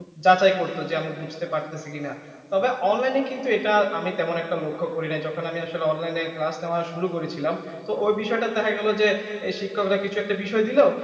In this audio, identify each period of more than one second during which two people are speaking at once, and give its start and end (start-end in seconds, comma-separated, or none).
none